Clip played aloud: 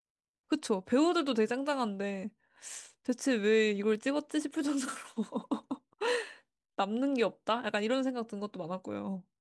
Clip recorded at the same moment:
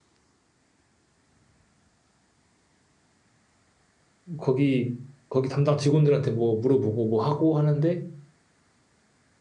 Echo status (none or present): none